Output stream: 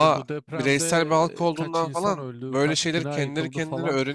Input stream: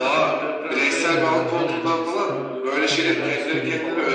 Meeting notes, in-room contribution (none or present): present